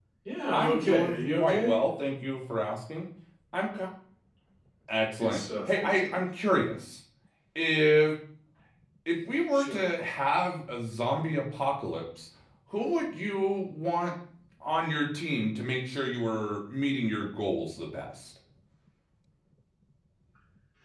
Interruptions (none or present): present